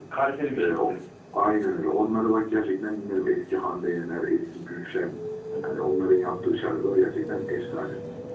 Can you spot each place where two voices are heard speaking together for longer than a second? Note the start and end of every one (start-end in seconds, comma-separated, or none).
none